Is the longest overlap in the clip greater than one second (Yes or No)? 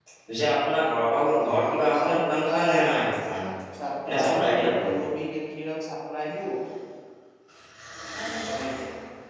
Yes